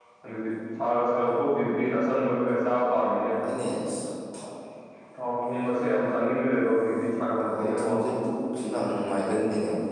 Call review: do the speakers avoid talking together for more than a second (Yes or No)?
Yes